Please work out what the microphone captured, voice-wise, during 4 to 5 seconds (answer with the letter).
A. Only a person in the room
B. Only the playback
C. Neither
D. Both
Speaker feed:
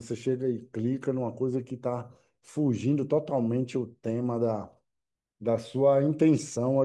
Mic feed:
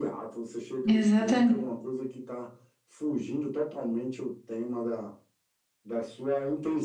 B